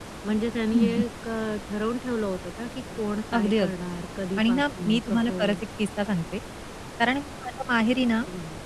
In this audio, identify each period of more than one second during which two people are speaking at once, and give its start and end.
4.4-5.6

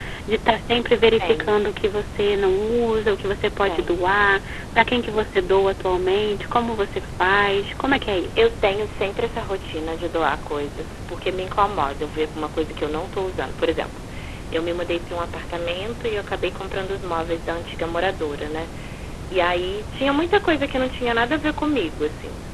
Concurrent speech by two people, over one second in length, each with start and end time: none

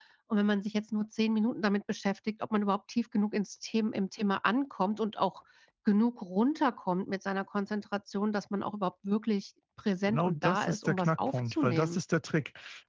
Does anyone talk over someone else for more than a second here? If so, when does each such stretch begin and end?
10.1-12.0

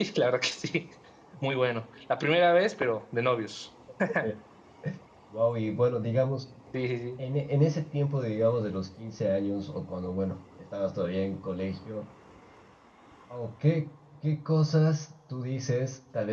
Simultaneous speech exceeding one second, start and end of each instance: none

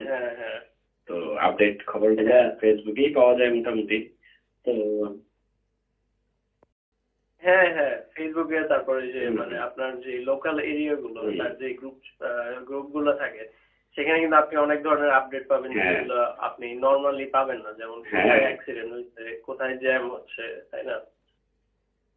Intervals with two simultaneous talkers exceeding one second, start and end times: none

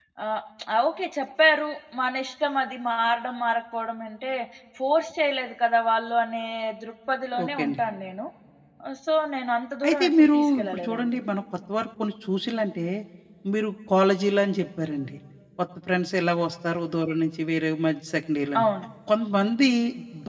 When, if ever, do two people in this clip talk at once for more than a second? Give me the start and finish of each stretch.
9.9-11.2

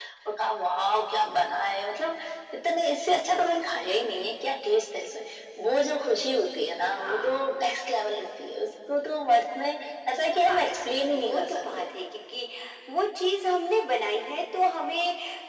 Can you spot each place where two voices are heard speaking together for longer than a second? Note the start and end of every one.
10.3-11.8

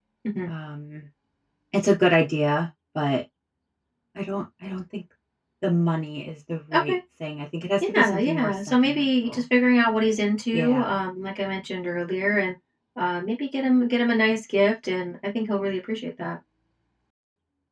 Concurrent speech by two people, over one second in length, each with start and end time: 7.8-9.4

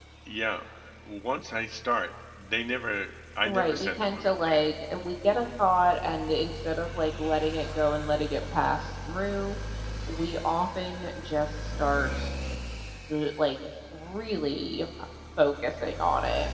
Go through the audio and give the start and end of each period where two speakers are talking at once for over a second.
3.4-4.6

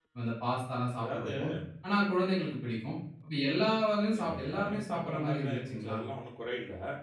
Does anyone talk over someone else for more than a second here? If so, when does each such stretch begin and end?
4.2-6.0

